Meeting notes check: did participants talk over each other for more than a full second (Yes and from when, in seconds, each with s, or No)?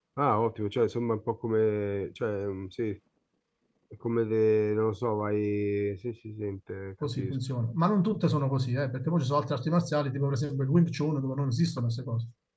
No